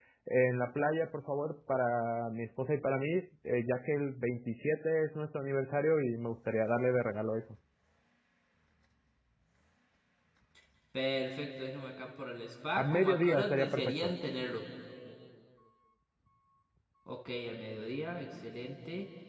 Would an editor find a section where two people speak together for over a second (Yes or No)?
Yes